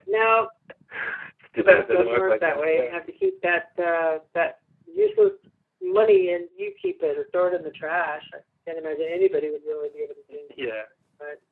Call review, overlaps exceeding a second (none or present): present